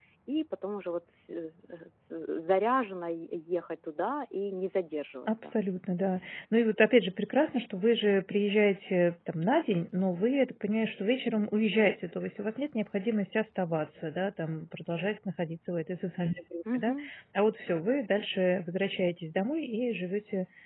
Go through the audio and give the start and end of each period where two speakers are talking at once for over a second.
none

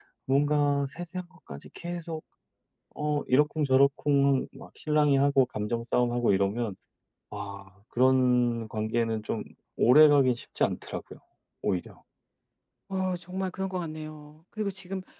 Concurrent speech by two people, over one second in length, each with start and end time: none

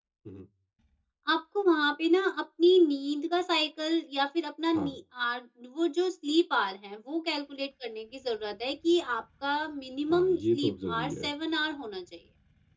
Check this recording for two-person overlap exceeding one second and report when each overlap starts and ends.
10.1-11.3

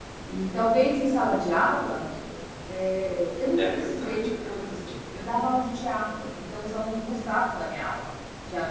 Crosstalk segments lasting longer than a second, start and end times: 3.6-4.9

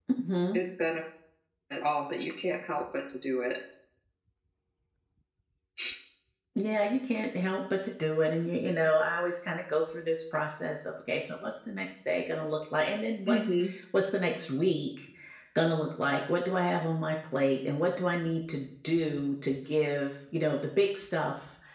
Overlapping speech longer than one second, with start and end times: none

